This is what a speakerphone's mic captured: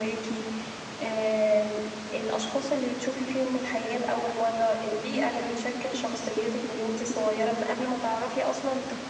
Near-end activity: none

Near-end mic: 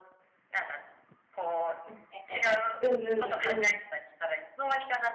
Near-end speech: present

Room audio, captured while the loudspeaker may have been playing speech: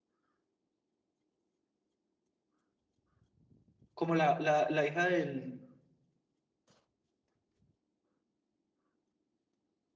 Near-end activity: present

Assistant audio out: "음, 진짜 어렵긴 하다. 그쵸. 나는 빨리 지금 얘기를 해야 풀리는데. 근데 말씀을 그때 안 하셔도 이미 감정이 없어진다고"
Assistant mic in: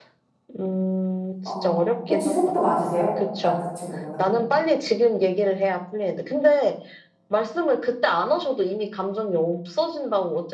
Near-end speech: present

